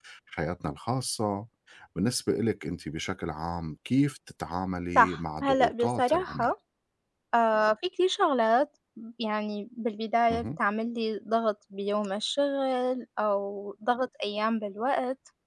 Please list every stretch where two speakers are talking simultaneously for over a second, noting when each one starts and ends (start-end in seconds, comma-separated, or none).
5.0-6.5